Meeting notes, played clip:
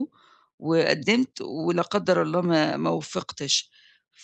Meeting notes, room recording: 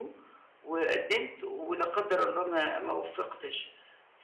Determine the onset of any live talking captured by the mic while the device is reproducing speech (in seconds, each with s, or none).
none